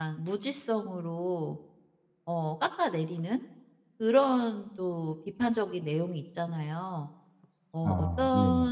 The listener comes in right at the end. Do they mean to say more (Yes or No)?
No